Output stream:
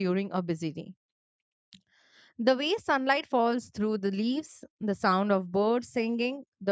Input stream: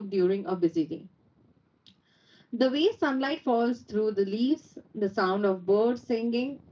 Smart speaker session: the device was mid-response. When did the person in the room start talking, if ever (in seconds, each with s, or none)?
none